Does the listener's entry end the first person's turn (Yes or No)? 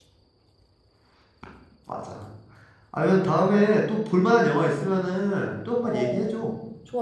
Yes